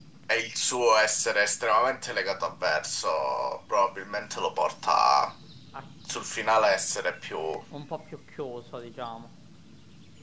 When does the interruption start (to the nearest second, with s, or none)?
none